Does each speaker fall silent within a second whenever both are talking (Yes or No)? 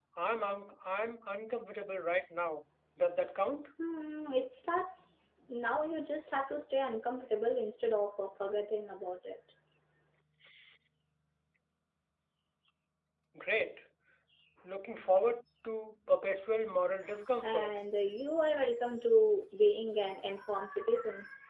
Yes